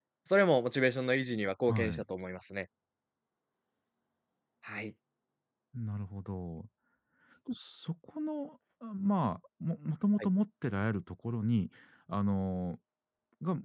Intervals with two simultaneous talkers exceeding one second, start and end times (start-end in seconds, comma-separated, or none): none